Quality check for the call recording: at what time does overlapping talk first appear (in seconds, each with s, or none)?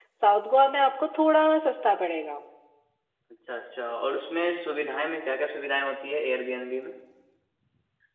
none